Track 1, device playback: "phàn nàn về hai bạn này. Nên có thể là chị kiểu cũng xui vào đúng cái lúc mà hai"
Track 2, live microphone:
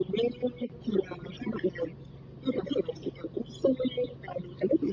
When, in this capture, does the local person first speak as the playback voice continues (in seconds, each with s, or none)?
none